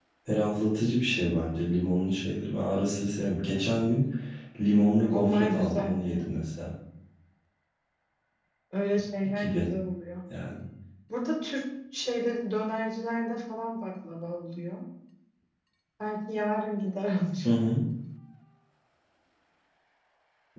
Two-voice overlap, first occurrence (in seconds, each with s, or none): 5.0 s